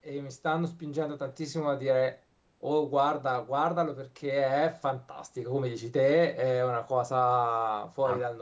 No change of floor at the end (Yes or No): No